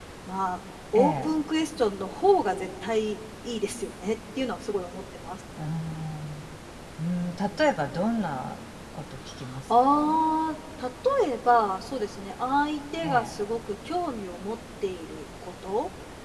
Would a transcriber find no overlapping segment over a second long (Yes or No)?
Yes